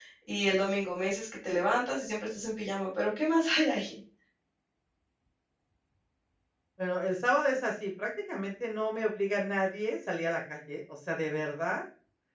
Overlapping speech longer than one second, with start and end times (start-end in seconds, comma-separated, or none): none